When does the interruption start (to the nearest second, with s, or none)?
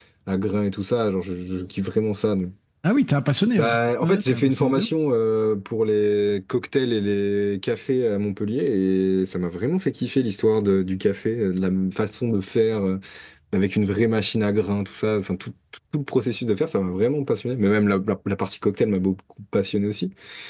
4 s